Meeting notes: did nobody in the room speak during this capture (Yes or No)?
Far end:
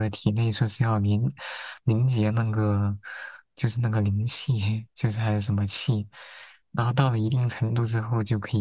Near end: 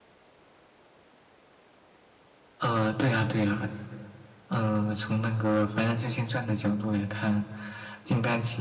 No